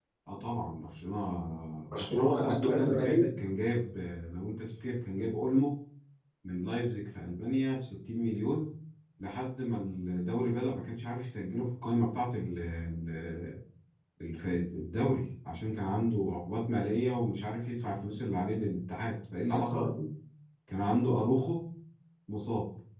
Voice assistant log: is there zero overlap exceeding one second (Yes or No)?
No